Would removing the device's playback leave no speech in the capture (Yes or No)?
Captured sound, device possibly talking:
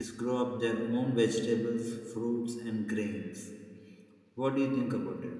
No